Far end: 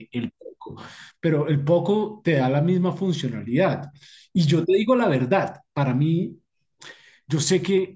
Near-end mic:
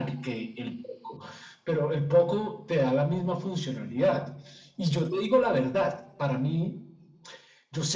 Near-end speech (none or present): none